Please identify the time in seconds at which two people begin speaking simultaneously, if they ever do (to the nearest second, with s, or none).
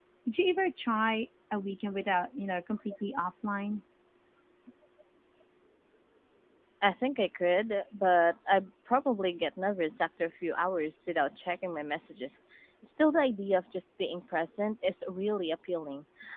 none